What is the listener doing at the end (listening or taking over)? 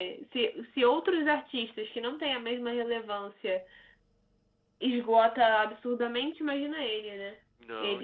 taking over